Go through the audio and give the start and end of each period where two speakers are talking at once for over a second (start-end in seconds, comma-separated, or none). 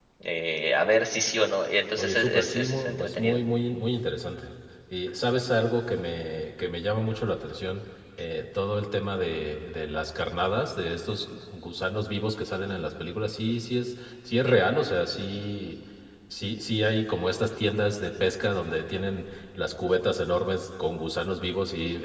2.0-3.4